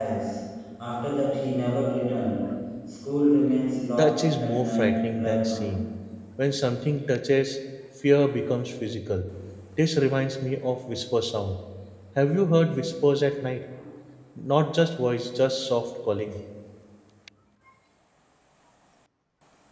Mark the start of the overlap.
4.0 s

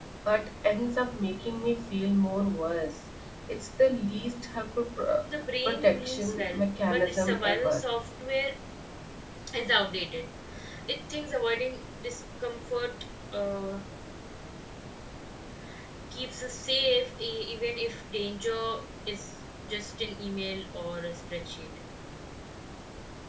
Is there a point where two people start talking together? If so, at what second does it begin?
5.6 s

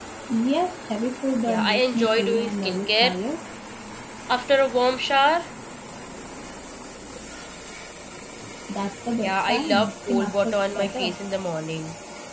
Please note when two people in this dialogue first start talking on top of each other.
1.5 s

